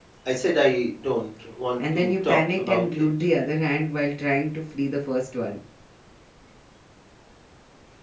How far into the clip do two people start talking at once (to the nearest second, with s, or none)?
2 s